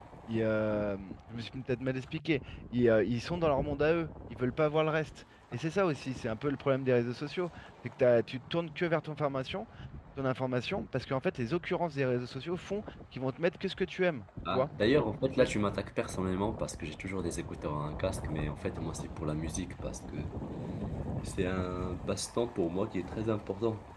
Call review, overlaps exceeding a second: none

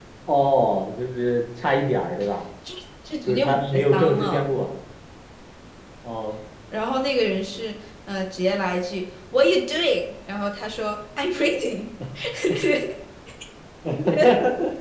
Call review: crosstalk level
present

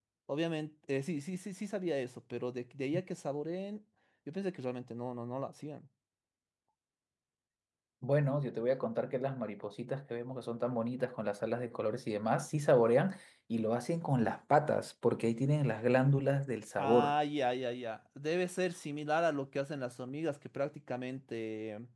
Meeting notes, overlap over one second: none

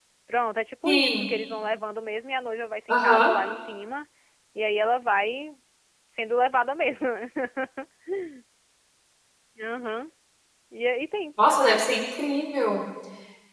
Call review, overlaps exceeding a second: none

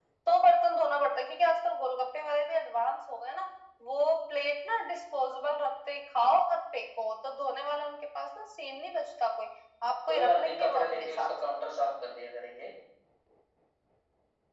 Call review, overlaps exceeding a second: present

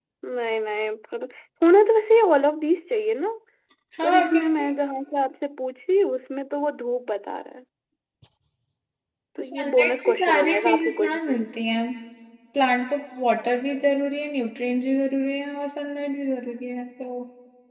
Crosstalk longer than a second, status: present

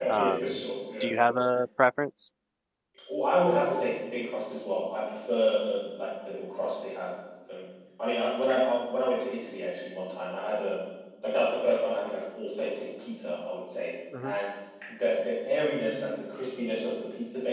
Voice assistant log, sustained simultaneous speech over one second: none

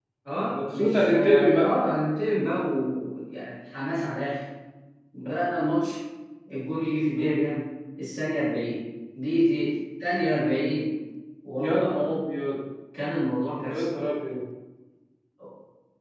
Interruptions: present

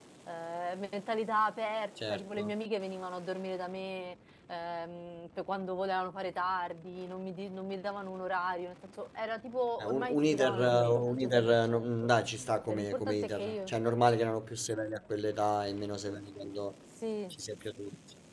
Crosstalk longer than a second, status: present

